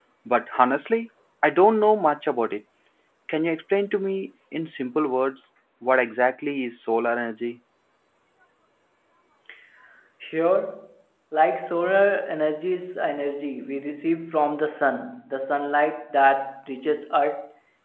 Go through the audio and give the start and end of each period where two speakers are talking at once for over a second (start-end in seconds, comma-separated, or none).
none